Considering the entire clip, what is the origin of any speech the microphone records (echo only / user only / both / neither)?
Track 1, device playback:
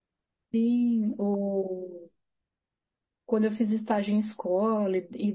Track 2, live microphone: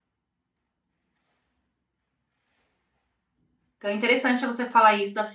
user only